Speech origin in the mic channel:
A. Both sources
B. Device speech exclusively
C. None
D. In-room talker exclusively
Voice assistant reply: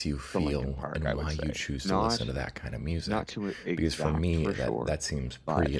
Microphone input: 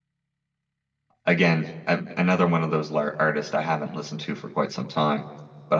D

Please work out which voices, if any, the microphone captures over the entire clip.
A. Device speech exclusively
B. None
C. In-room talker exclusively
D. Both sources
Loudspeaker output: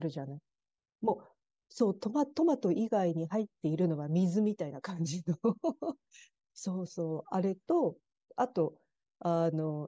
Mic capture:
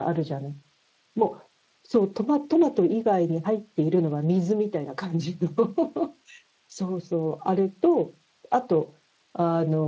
A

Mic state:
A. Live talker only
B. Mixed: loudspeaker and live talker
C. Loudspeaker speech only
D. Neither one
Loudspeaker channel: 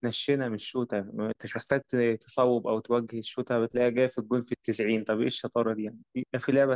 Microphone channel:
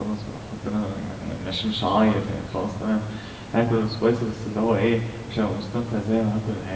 A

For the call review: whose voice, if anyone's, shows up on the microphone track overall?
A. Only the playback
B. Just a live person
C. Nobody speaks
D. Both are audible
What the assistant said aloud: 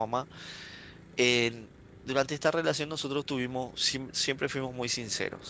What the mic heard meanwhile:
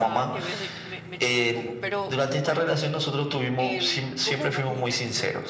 D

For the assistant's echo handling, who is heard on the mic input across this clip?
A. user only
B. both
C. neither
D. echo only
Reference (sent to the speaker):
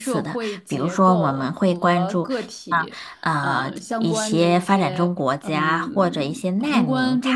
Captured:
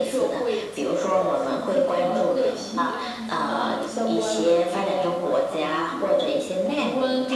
B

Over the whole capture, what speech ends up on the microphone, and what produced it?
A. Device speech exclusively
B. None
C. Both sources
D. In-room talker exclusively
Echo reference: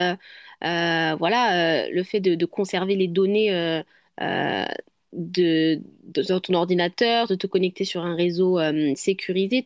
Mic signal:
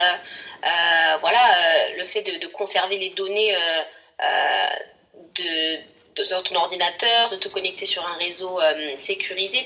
A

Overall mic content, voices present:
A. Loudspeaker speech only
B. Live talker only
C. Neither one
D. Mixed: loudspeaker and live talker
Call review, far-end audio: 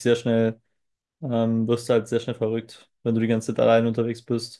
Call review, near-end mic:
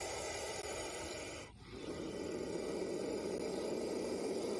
C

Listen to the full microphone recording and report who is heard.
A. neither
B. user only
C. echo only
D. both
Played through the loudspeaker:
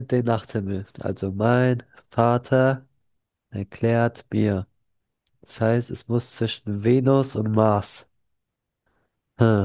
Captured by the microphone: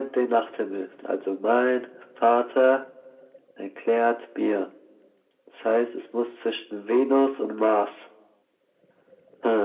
C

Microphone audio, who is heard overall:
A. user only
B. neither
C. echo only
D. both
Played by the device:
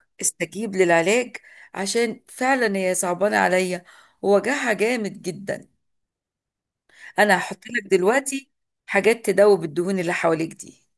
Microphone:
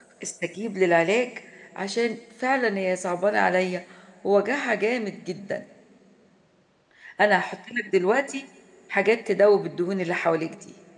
C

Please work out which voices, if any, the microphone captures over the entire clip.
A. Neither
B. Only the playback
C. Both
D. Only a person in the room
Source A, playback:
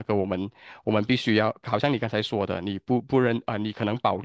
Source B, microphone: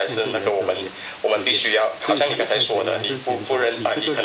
C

